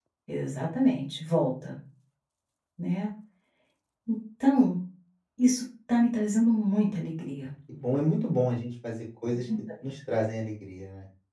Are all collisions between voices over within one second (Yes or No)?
Yes